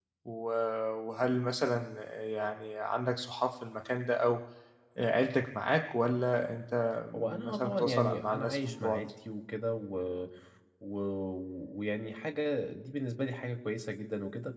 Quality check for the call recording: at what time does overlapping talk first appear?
7.4 s

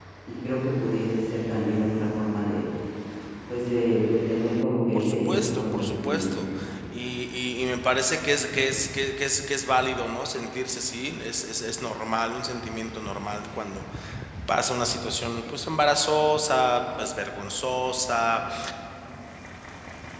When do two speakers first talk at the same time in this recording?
4.9 s

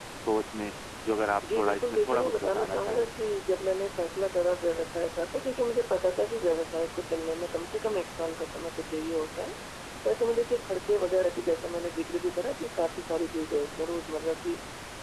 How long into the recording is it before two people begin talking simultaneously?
1.4 s

